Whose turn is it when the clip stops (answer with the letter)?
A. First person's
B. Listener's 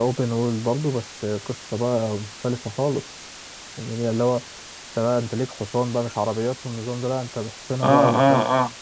B